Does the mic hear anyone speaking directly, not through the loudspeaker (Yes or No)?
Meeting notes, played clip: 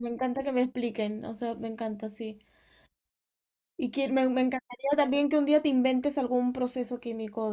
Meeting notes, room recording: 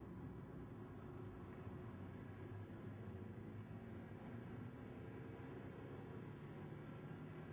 No